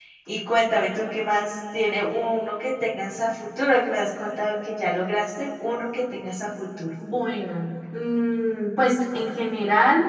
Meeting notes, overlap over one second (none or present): none